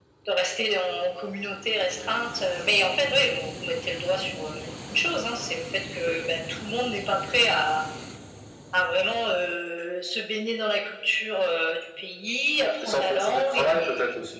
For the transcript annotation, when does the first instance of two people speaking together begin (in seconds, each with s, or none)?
12.8 s